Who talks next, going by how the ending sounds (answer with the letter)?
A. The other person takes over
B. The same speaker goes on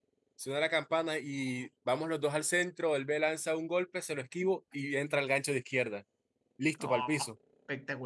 A